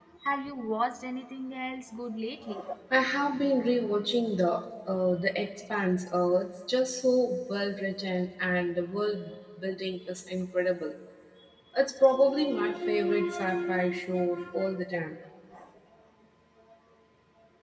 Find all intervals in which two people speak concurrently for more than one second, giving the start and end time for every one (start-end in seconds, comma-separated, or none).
none